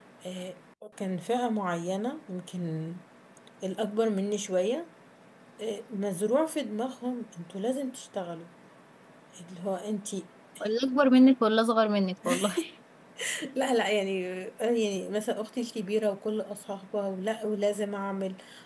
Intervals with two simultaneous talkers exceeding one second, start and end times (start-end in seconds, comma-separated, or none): none